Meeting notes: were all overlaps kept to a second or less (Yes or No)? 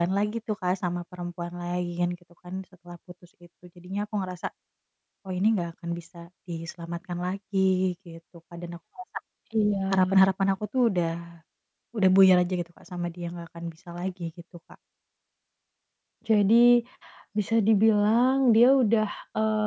Yes